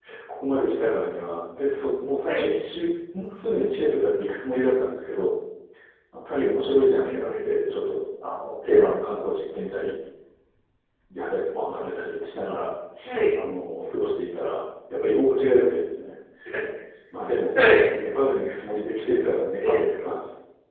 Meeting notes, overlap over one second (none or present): none